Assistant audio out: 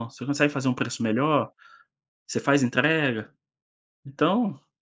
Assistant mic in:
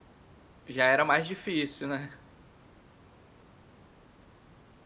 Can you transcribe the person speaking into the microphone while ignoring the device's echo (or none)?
Já era mais difícil, né?